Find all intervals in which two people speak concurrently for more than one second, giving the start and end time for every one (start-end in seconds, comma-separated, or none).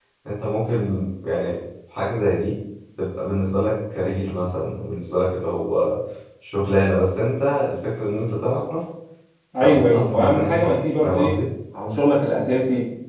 9.6-11.3